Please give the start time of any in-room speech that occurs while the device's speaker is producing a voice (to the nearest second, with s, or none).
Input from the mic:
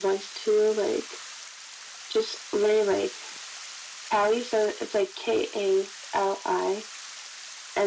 none